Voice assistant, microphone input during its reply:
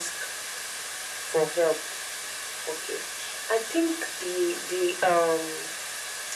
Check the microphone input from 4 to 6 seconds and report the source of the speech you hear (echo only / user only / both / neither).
echo only